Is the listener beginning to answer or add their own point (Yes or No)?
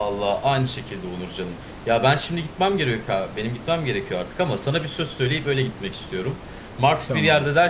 No